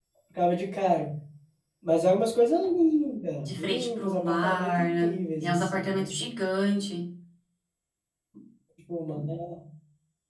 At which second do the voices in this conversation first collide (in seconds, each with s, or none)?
3.4 s